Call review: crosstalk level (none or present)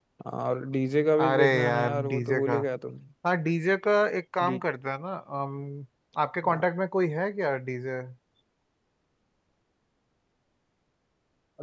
present